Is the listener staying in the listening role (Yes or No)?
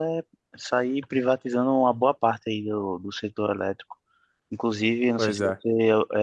Yes